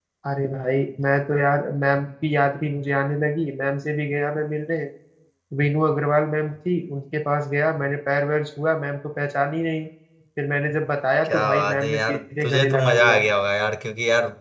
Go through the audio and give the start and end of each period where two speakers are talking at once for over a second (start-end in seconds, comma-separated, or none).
11.2-13.3